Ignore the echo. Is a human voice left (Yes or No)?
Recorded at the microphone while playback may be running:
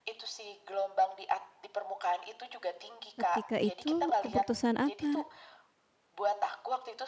Yes